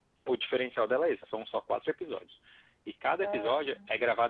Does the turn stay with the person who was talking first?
Yes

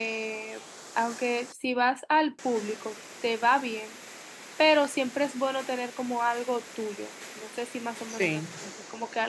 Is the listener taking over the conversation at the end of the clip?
No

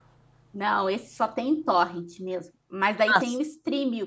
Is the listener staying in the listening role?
Yes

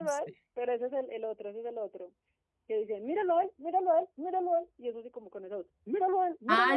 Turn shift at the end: Yes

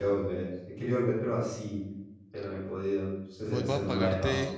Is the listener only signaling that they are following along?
No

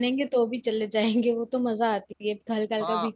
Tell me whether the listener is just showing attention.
No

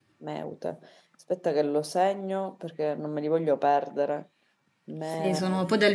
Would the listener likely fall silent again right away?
No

